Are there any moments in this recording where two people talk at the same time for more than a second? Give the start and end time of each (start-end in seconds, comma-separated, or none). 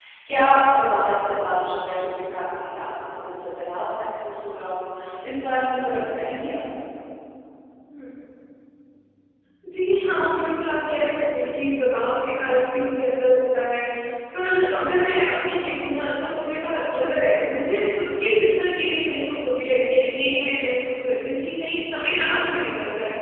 none